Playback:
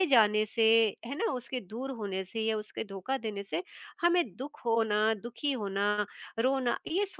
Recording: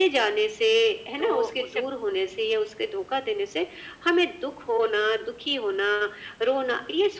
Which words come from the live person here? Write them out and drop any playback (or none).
तो उसे